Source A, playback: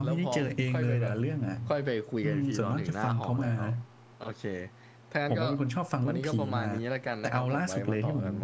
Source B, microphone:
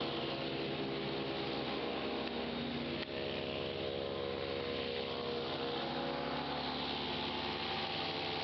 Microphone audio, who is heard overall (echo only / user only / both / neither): neither